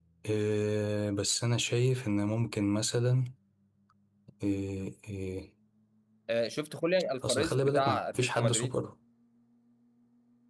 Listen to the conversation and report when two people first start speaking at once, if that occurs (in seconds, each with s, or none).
7.2 s